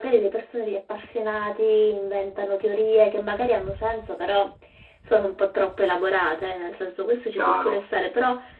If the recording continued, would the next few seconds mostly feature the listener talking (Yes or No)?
No